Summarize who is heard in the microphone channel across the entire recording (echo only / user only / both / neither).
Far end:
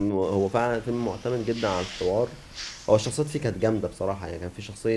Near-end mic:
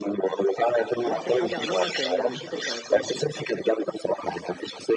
both